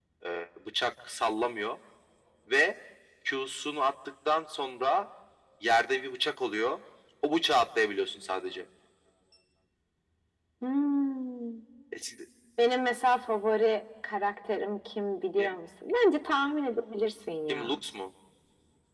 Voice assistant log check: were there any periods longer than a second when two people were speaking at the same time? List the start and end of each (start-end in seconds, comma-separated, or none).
none